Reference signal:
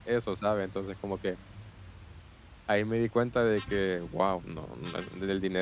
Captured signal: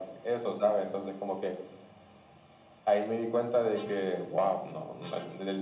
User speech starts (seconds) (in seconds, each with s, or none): none